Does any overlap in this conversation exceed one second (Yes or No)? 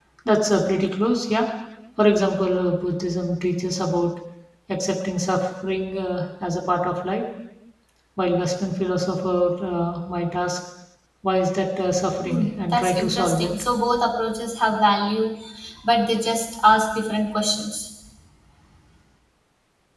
Yes